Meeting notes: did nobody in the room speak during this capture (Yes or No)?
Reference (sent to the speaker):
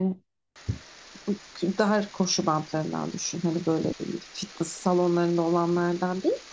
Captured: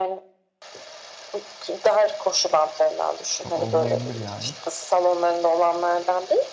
No